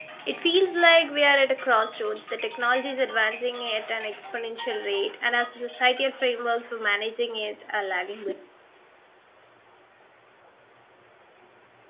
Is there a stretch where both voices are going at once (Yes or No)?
No